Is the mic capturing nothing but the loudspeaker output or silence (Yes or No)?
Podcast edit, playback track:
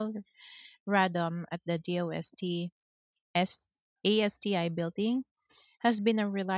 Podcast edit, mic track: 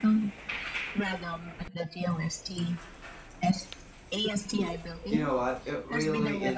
No